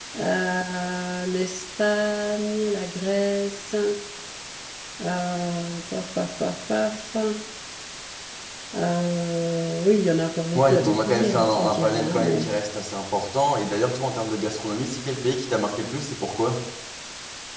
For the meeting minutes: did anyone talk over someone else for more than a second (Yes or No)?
Yes